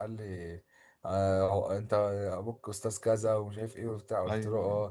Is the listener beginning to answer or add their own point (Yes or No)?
No